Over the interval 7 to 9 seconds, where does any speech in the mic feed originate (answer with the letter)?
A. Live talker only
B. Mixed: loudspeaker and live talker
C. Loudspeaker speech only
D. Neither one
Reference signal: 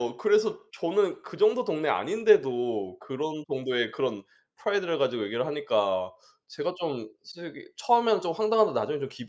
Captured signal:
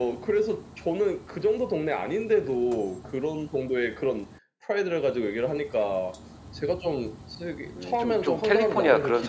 B